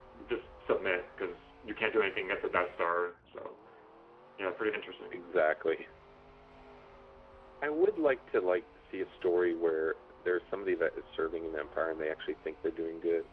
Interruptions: none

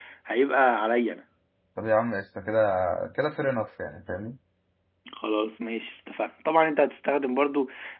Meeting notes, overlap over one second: none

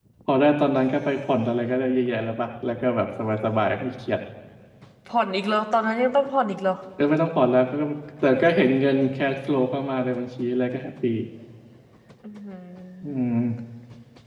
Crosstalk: none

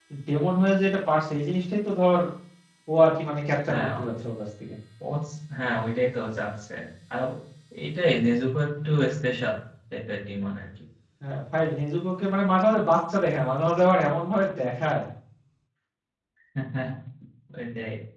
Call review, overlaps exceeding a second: none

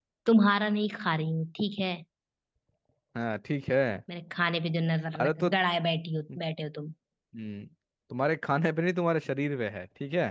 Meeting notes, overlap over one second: none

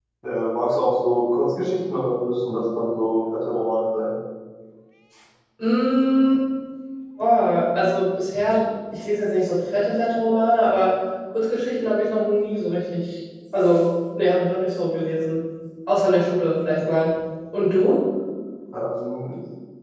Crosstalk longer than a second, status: none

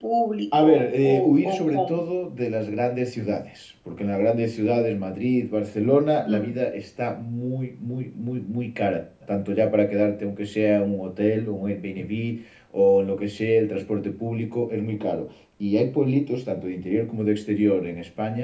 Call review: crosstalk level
present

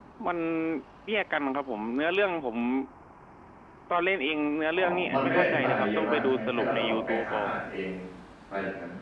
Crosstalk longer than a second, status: present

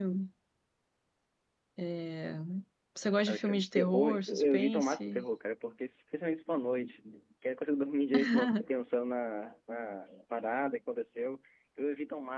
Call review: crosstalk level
present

